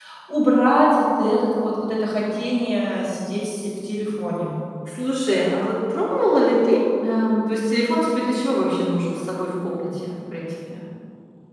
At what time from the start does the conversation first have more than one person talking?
none

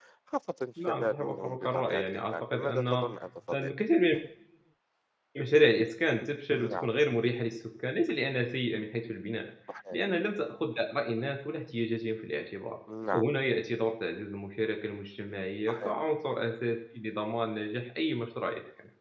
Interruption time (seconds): 0.9 s

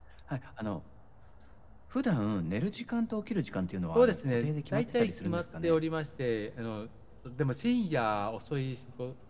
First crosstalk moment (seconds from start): 4.0 s

